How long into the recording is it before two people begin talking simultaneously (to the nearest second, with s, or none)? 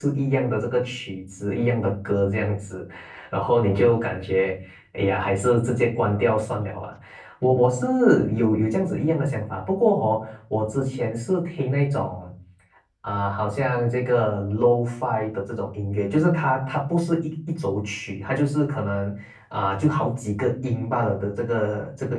none